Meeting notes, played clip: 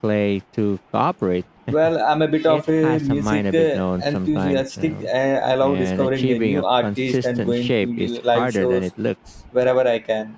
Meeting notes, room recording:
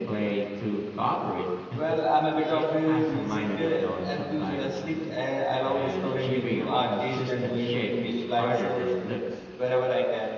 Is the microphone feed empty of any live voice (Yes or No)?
Yes